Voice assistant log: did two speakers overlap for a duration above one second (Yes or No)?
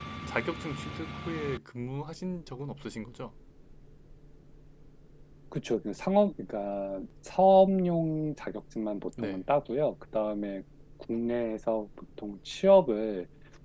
No